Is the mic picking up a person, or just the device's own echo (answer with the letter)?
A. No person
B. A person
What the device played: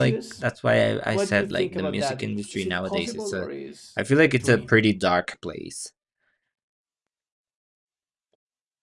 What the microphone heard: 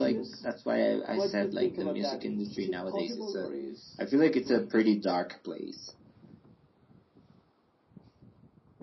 A